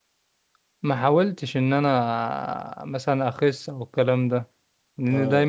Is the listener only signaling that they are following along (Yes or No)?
Yes